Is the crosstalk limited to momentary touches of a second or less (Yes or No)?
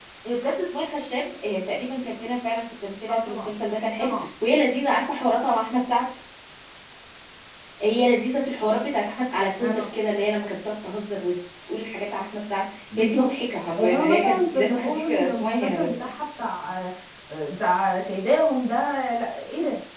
No